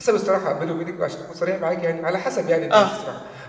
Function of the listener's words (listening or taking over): listening